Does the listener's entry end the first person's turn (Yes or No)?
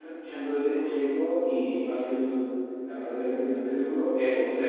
Yes